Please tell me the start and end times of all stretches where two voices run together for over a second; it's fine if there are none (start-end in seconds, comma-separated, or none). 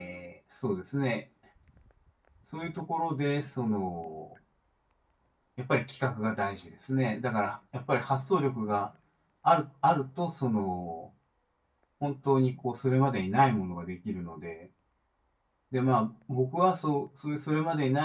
none